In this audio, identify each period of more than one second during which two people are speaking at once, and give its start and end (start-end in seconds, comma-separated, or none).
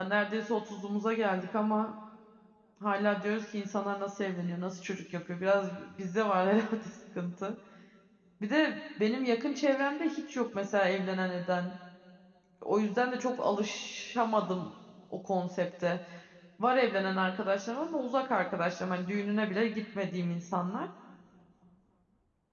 none